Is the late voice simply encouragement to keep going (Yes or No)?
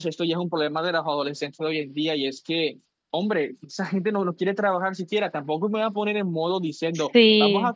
Yes